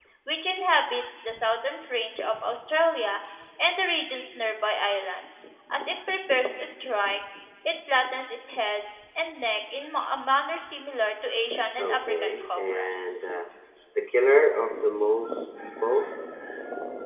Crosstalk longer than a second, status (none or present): present